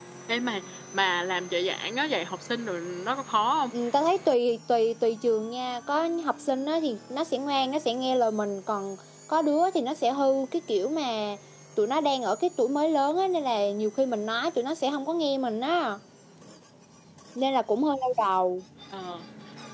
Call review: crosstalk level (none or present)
none